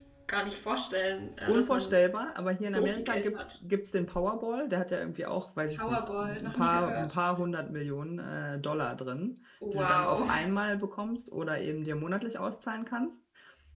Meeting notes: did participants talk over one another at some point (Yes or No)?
Yes